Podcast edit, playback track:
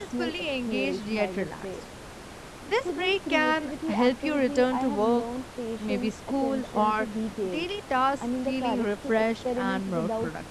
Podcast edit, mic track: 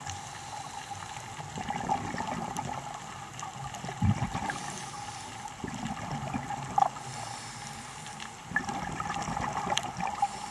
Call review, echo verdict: none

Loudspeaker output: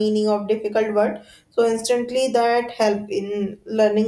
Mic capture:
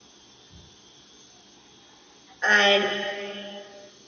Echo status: none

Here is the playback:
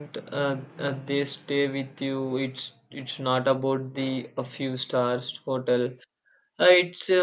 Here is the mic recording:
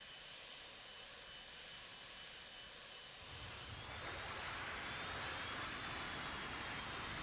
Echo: none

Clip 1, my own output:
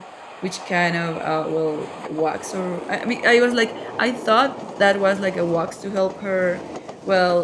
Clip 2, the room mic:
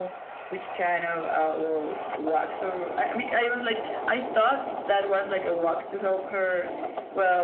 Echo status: present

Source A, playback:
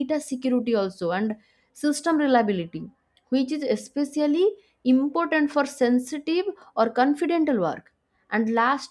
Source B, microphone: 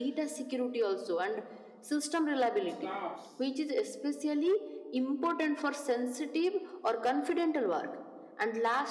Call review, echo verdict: present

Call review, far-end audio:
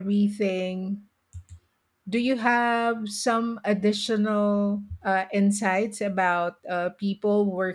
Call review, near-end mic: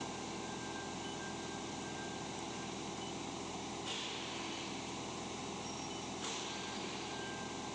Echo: none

